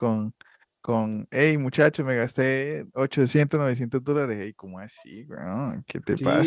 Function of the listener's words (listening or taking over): taking over